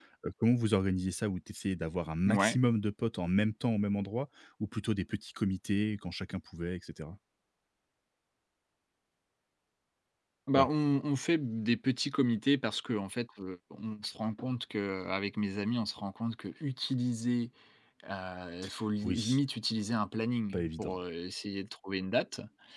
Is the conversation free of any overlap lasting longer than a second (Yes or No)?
Yes